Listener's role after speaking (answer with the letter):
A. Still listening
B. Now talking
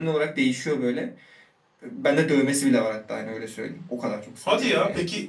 B